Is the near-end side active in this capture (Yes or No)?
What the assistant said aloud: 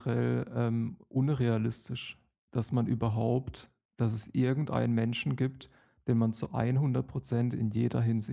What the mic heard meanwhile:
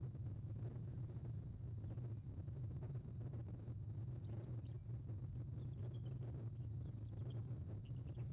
No